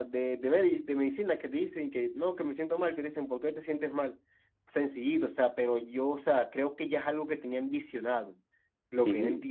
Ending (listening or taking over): listening